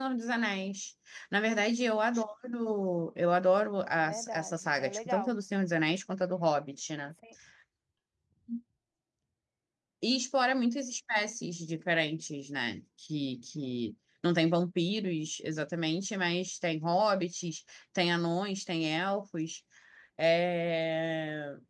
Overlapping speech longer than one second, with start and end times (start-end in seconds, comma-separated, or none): 4.1-5.3